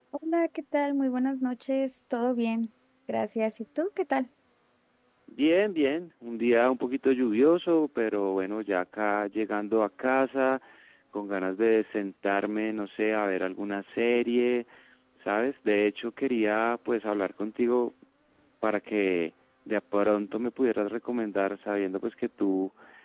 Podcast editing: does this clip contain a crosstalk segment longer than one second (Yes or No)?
No